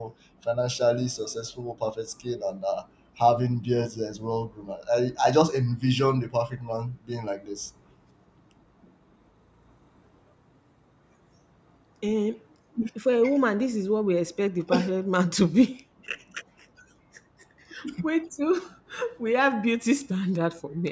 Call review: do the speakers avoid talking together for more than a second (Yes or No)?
Yes